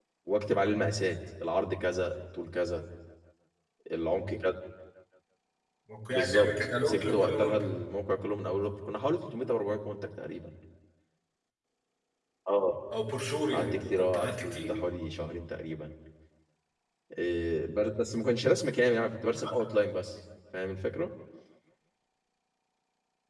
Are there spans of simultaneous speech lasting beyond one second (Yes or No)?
Yes